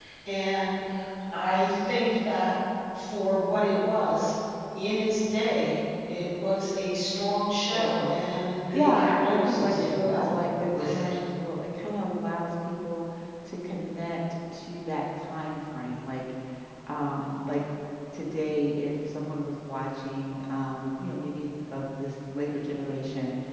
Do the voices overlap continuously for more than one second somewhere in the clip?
Yes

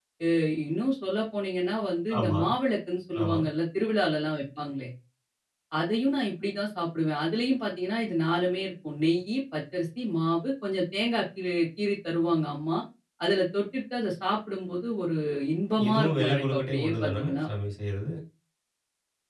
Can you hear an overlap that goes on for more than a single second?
Yes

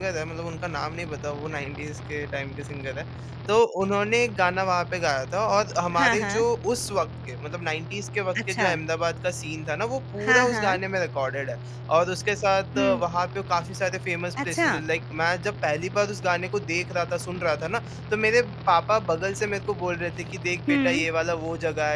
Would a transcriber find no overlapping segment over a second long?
Yes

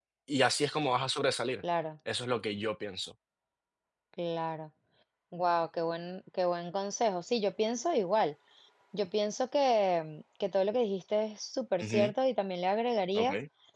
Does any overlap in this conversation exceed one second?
No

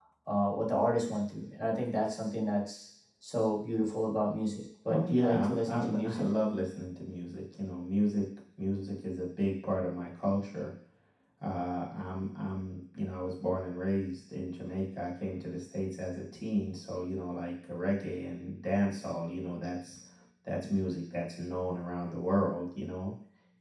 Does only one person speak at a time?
No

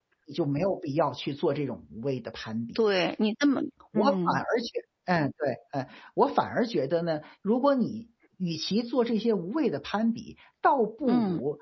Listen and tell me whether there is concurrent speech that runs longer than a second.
No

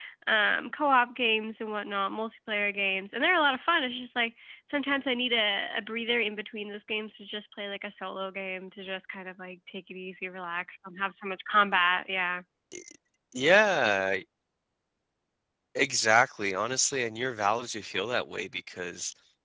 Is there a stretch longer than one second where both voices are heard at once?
No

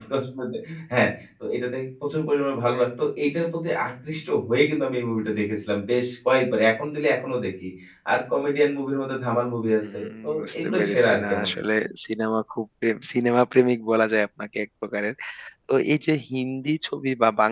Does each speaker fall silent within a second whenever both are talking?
No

